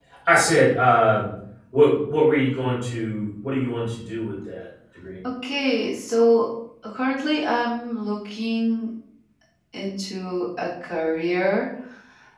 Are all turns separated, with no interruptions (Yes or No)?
Yes